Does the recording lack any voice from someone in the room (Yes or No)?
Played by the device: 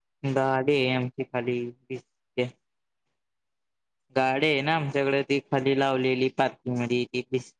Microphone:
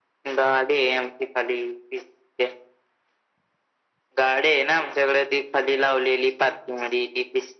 Yes